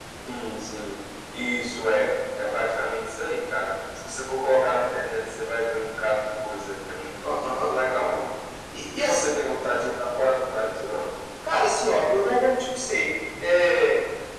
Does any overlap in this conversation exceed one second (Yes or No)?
No